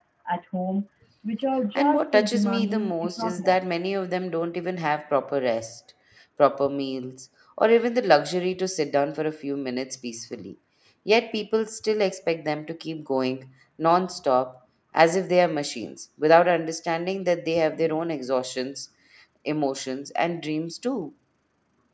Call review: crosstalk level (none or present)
present